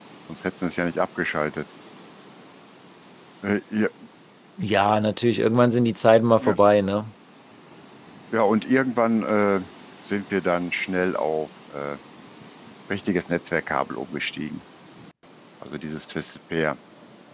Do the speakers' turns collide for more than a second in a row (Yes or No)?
No